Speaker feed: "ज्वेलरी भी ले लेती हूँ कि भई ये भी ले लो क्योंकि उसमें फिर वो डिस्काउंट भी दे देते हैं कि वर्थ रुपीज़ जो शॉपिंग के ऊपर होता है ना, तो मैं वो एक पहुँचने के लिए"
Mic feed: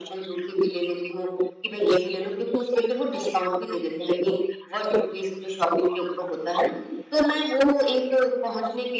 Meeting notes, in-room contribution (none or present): none